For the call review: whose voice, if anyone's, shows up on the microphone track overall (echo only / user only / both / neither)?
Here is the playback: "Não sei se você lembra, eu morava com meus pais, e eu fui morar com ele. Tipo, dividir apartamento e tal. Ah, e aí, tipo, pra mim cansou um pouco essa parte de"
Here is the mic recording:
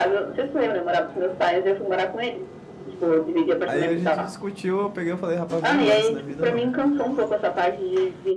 both